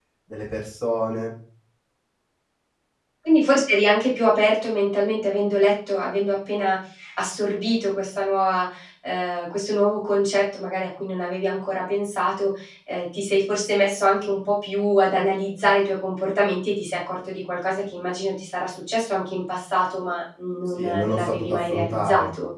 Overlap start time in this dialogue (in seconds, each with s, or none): 20.8 s